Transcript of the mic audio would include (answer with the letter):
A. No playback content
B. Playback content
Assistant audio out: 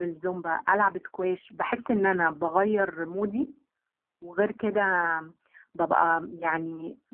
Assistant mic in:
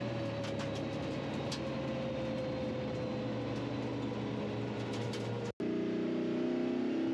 A